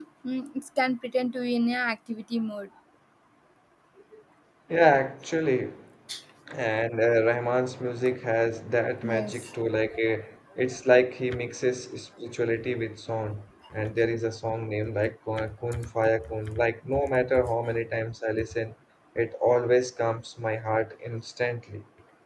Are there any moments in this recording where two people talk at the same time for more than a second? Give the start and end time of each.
none

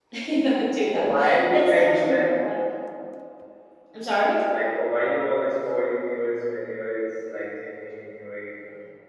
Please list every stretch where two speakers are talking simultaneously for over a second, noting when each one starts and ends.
0.9-2.3

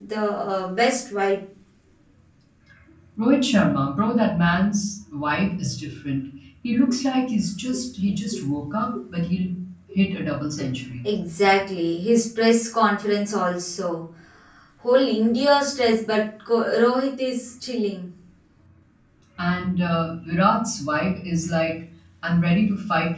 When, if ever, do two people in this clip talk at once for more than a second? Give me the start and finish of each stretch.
none

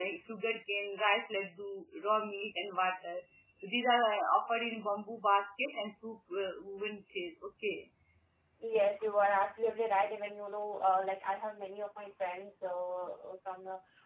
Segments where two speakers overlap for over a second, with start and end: none

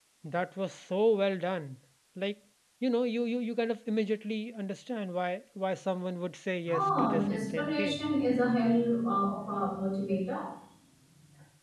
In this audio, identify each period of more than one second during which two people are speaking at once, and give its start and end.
6.7-8.0

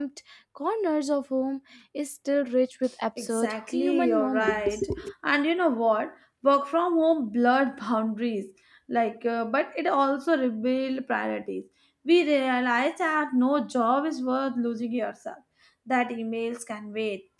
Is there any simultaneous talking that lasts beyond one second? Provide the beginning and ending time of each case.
3.2-4.8

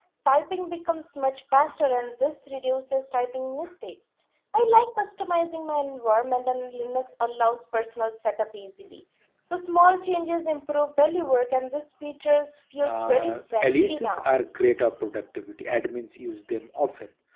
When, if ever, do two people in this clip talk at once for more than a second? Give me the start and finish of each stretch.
12.8-14.3

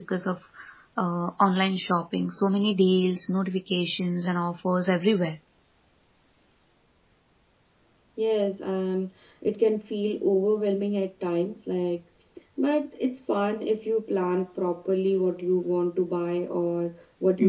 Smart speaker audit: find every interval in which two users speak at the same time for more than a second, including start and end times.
none

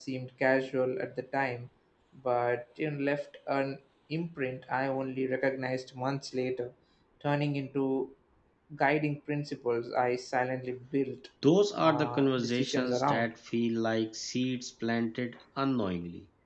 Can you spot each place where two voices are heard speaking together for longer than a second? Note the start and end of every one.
11.8-13.3

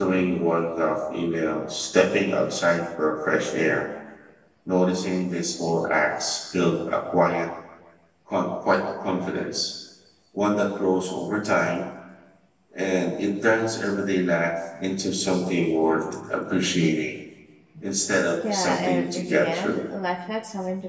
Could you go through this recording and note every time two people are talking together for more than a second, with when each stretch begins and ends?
18.4-19.8

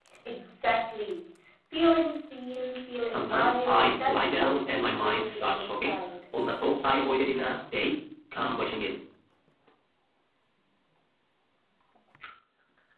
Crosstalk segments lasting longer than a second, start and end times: 3.0-6.0

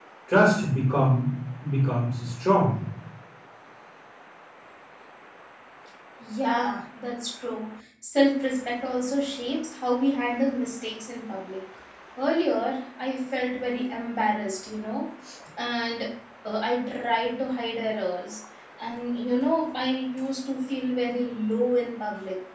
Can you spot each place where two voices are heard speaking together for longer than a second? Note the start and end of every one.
none

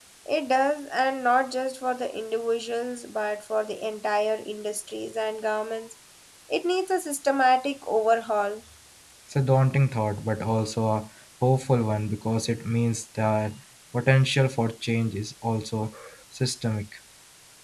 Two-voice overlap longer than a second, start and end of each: none

